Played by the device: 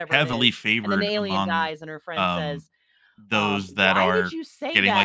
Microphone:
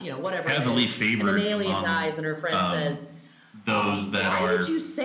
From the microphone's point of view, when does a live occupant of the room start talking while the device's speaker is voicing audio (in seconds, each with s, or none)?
none